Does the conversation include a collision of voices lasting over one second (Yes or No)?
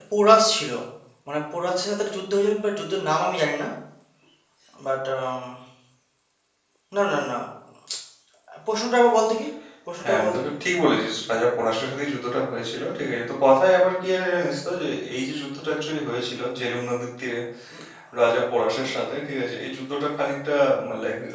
No